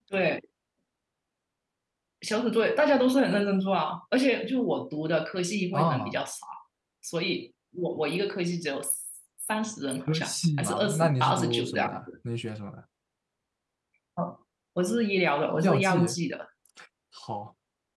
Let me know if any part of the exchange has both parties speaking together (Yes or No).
Yes